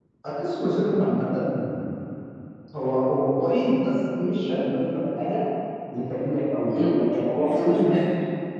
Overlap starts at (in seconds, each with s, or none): 6.7 s